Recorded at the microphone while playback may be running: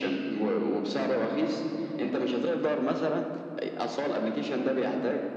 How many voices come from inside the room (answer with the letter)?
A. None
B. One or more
A